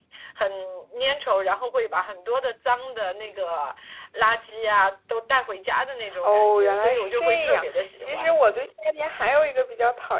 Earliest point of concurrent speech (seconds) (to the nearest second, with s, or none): 6 s